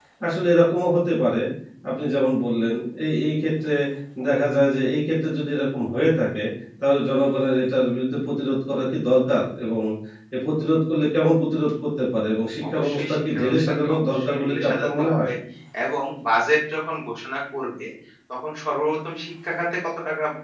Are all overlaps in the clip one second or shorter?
No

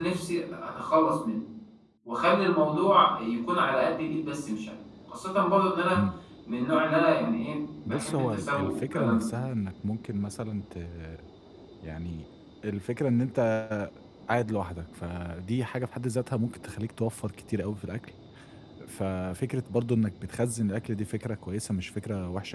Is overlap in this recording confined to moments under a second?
No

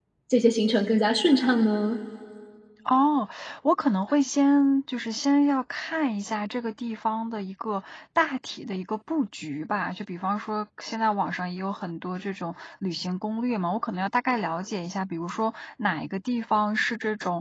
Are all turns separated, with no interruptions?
Yes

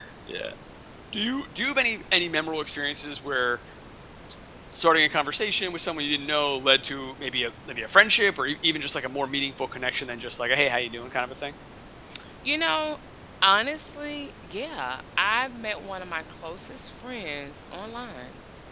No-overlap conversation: Yes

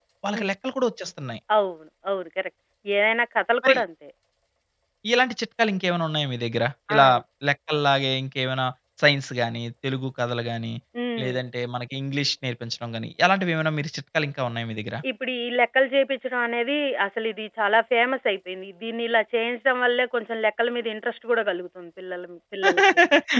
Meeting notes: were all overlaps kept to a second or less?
Yes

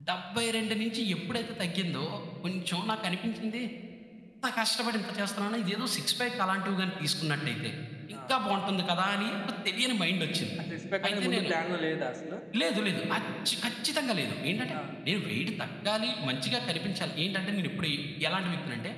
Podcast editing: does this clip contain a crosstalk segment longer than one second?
No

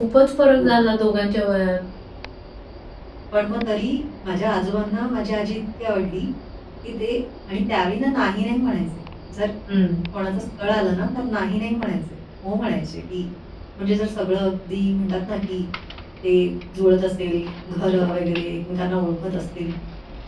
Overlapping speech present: No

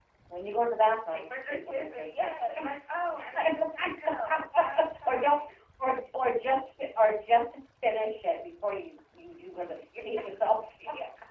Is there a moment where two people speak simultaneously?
Yes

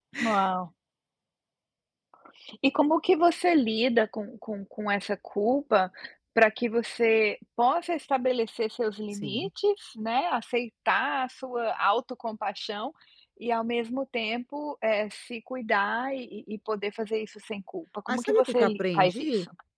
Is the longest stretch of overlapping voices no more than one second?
No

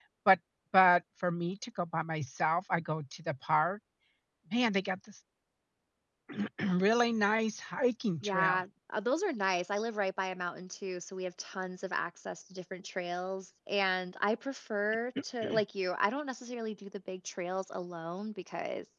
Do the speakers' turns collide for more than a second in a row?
No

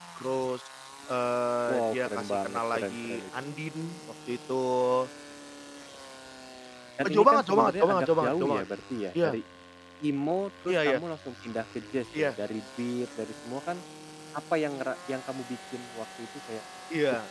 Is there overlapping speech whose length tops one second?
Yes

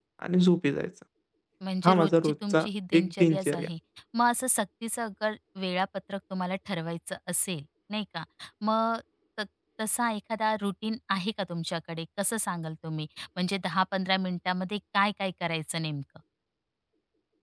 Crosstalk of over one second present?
Yes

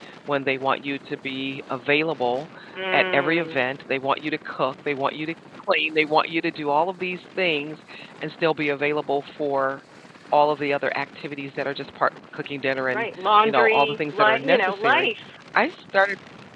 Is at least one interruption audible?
Yes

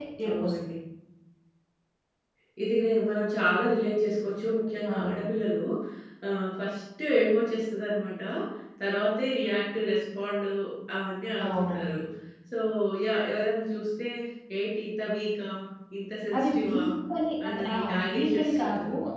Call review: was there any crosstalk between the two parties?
Yes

